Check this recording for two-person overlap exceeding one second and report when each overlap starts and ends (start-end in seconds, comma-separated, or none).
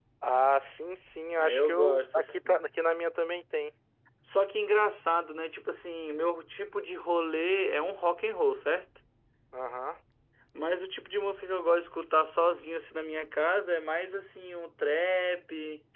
1.4-2.7